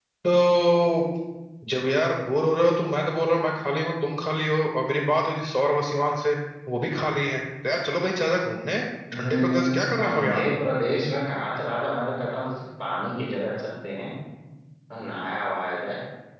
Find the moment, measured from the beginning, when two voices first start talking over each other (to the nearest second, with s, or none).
9 s